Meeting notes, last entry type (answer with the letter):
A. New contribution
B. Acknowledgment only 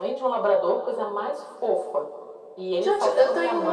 A